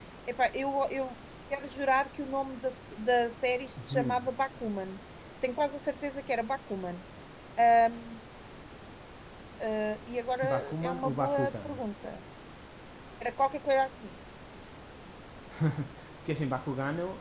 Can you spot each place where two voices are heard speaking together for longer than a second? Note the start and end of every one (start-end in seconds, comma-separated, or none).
10.5-11.7